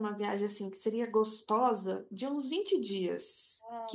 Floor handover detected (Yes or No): Yes